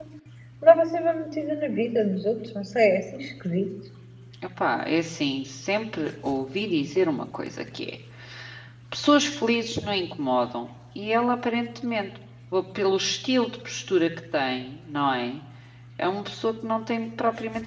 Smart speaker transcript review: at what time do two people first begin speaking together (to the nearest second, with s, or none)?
none